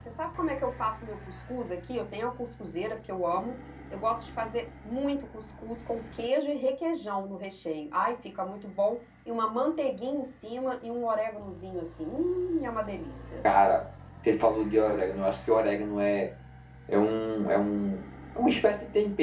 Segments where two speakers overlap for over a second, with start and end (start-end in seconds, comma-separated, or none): none